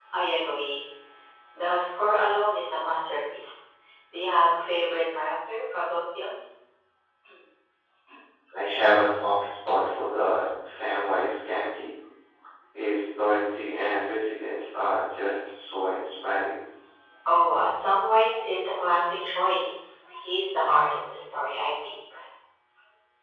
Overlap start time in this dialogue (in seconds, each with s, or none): none